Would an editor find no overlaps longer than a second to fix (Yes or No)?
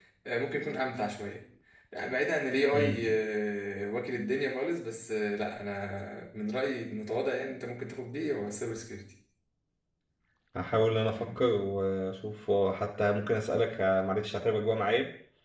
Yes